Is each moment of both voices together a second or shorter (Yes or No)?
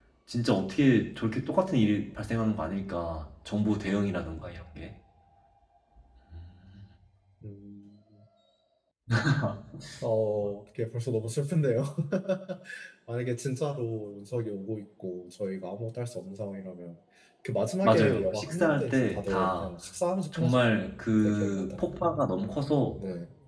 No